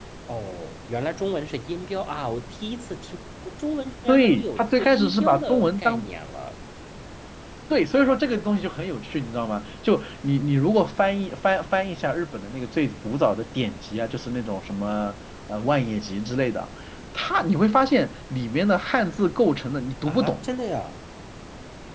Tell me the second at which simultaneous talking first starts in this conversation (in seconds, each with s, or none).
4.1 s